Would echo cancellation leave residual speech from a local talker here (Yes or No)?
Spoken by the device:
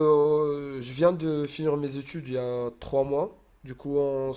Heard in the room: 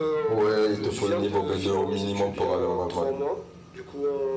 Yes